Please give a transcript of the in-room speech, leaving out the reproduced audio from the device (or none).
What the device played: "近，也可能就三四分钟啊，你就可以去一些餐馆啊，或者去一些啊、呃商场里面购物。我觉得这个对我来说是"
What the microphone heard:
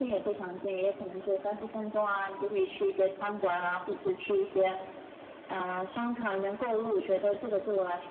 none